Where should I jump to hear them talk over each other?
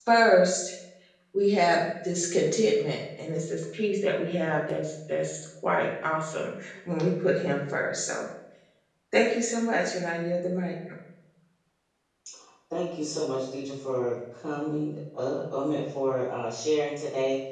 none

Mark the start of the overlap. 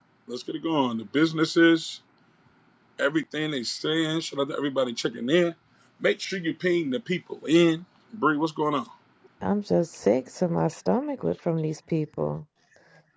none

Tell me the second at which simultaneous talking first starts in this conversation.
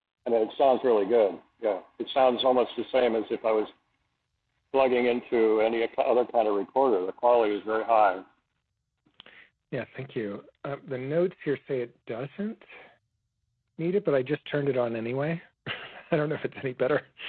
none

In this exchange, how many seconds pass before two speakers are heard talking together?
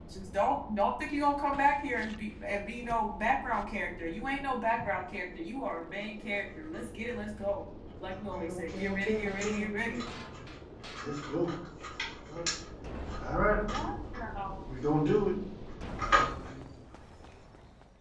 8 s

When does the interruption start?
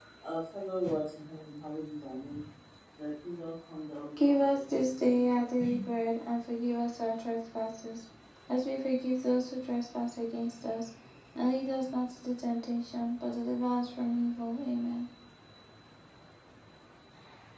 4 s

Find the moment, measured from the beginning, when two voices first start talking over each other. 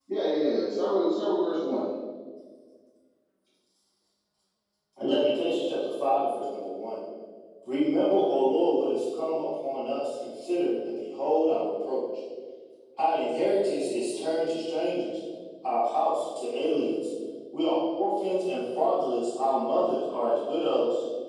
none

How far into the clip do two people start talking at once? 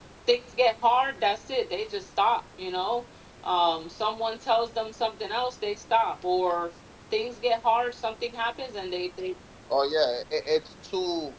none

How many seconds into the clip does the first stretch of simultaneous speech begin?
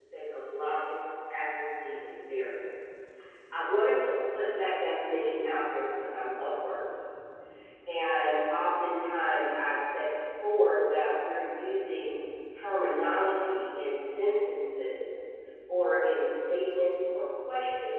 none

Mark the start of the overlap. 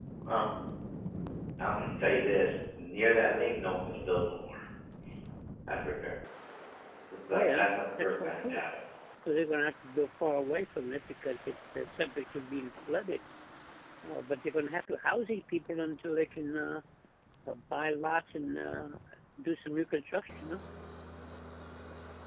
7 s

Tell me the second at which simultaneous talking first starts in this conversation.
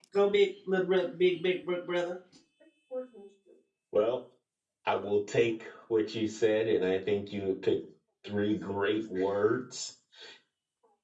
none

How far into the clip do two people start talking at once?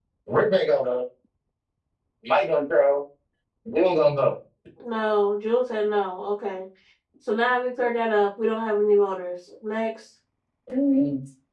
none

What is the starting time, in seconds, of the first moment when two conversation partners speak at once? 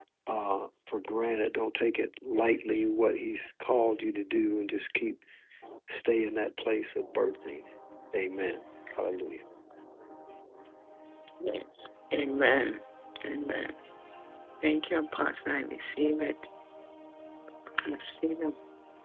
none

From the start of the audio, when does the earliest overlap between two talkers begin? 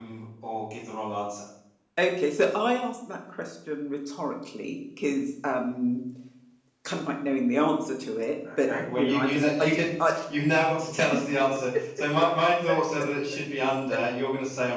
8 s

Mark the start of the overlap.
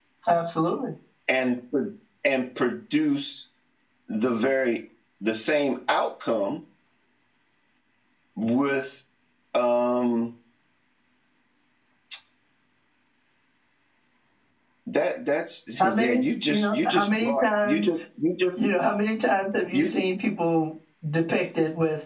16 s

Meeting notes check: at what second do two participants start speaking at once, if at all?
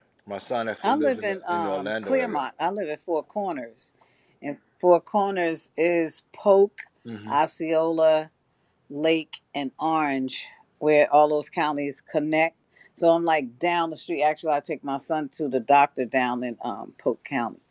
1 s

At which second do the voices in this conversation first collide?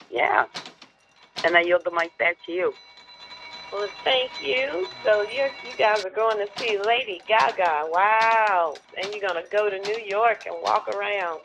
none

